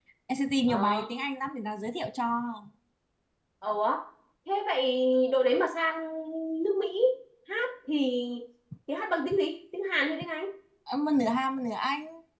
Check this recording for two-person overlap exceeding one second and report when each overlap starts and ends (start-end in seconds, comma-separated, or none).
none